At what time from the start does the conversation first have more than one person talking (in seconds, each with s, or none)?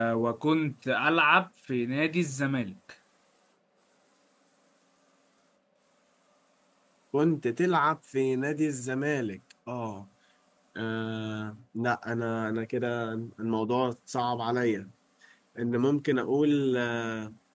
none